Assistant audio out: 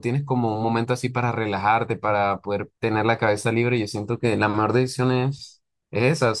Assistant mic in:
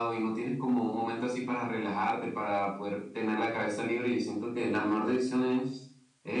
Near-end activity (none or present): none